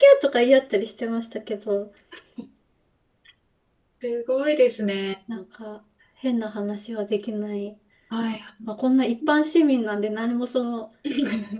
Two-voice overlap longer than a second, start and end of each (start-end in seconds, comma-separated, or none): none